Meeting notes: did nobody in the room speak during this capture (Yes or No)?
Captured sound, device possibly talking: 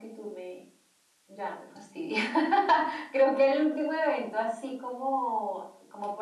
Yes